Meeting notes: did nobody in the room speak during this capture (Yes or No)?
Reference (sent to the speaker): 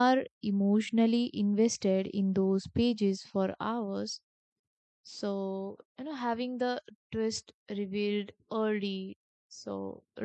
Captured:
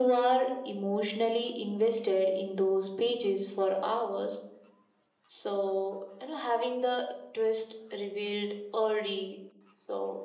Yes